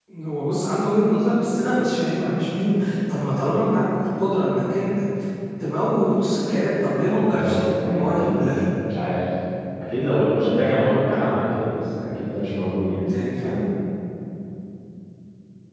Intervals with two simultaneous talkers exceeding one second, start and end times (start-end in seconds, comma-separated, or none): 7.3-8.6